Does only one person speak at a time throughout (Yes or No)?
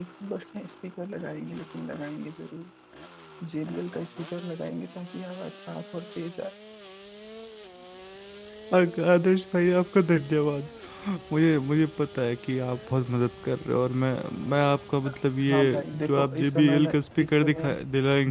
No